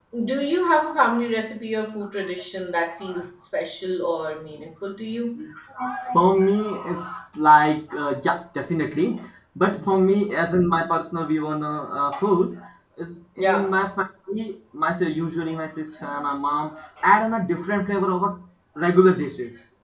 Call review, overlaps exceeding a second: none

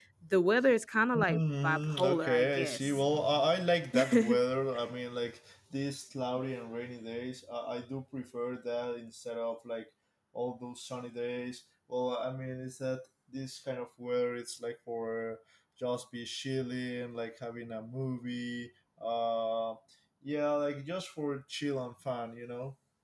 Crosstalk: present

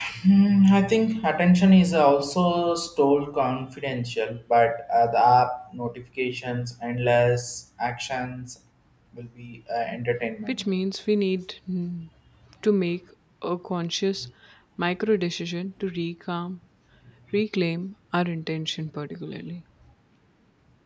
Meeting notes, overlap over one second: none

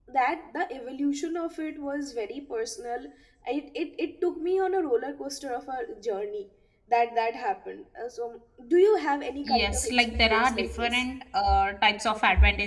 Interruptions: present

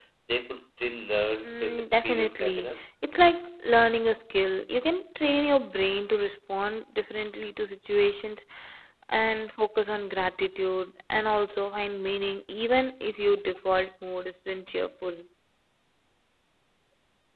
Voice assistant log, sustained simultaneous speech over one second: present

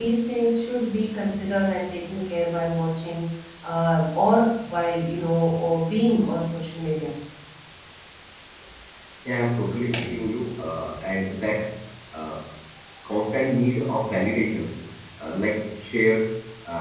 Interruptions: none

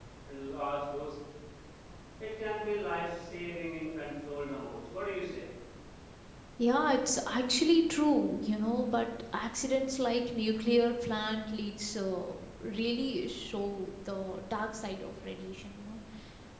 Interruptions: none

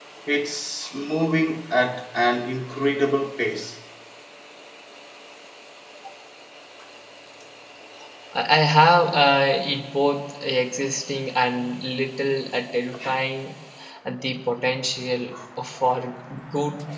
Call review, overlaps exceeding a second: none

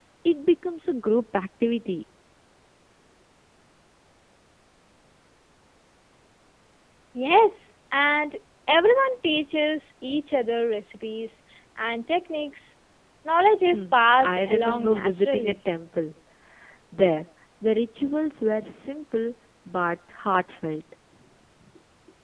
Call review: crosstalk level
present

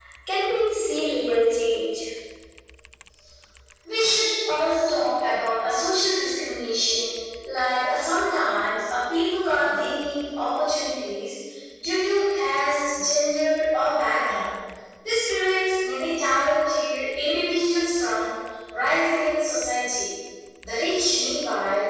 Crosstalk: none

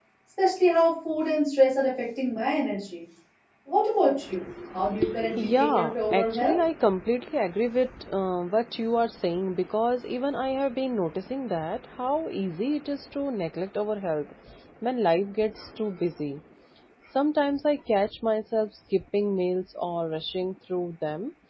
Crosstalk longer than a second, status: present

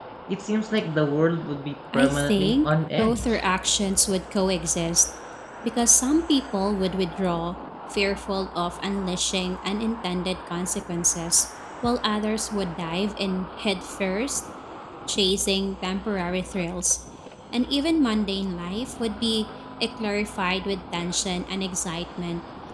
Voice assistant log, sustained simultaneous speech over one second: present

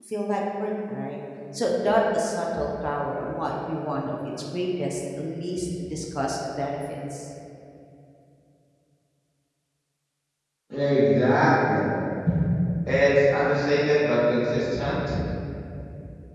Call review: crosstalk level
none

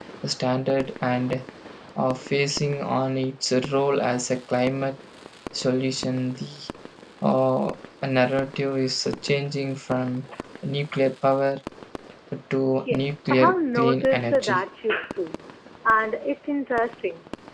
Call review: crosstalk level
present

